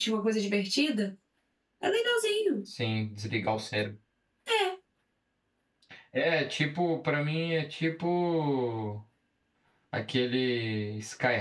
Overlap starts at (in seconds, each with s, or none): none